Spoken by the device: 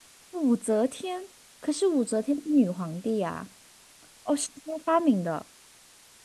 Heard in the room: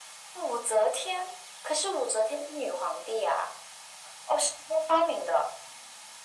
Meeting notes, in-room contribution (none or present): none